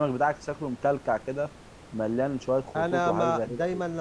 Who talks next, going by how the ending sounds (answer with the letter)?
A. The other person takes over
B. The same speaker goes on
A